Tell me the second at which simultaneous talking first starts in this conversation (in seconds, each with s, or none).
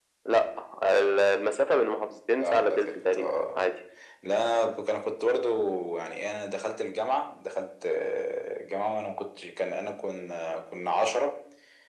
2.4 s